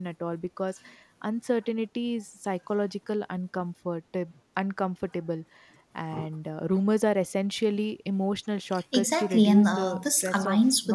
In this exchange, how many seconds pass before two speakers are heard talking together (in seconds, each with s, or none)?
8.9 s